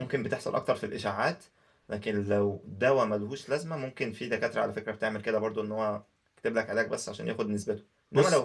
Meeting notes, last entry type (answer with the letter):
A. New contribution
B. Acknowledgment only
B